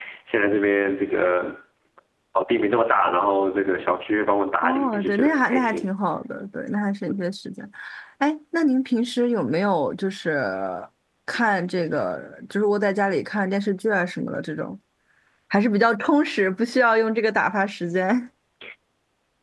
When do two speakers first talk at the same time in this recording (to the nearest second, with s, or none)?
5 s